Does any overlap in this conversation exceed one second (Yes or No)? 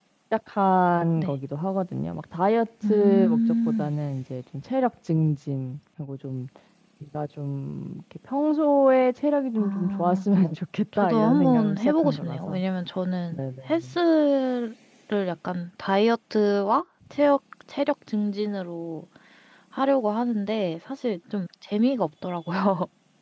Yes